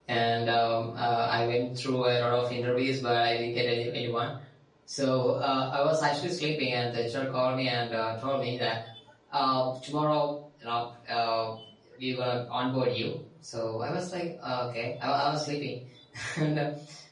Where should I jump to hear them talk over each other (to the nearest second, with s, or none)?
none